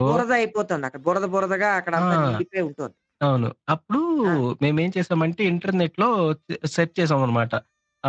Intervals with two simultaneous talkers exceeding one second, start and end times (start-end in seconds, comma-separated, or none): none